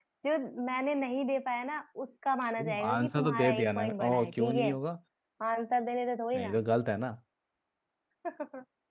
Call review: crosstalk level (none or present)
present